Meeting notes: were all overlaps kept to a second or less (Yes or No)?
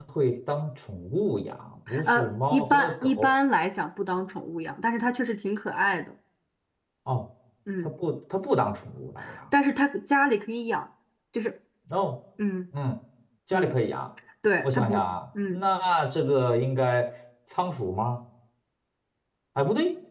No